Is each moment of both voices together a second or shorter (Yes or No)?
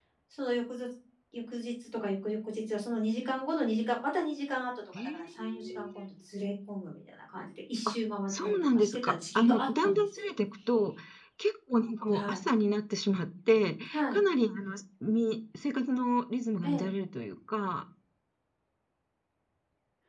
No